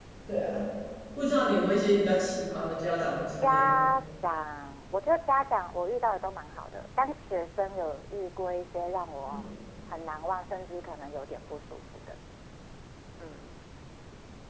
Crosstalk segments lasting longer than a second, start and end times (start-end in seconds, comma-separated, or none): none